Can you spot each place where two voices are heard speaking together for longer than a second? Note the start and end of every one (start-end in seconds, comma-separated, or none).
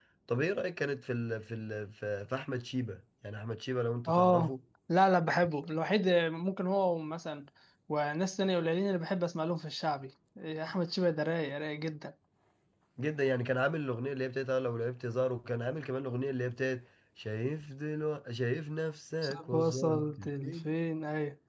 19.2-20.6